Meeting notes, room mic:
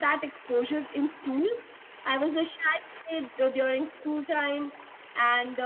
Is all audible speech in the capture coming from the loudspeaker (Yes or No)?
Yes